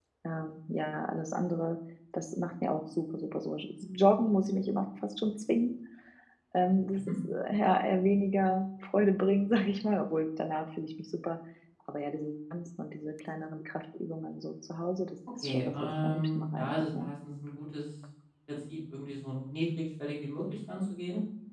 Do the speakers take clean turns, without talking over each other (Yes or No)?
No